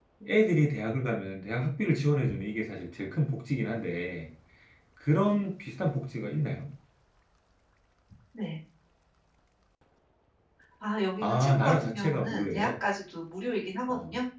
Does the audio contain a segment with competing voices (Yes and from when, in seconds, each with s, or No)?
Yes, from 11.2 s